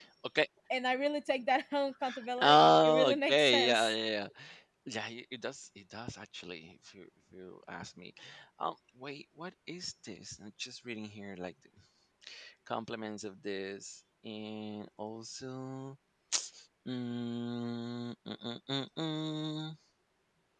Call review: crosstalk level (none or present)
present